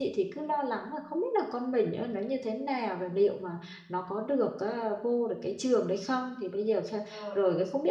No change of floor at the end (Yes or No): Yes